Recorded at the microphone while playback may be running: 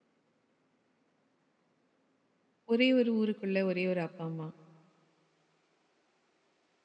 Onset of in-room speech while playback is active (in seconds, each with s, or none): 2.7 s